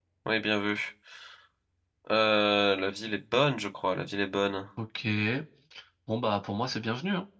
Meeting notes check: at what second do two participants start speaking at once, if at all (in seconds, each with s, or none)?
none